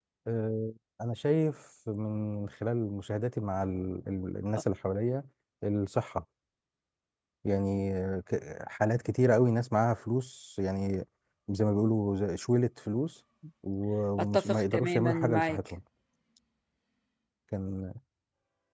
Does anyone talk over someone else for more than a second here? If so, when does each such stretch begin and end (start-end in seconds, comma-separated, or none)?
14.3-15.6